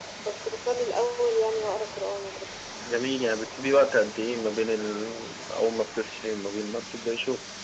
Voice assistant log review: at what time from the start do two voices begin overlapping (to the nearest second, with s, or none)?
none